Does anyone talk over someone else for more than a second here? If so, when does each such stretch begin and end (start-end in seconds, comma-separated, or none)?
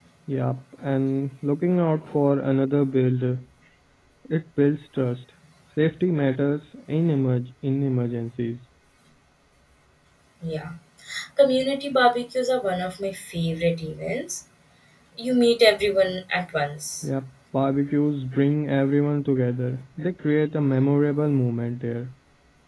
none